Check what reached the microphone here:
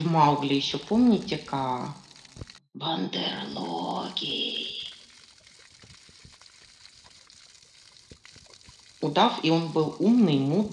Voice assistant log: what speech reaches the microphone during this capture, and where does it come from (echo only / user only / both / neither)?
echo only